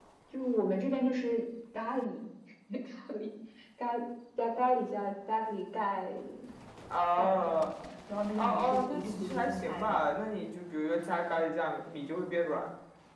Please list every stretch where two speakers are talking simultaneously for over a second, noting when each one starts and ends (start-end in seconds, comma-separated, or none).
8.4-10.0